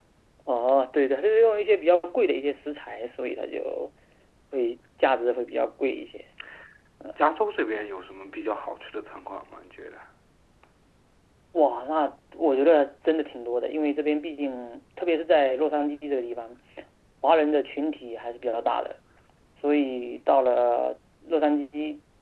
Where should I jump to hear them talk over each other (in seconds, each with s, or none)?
none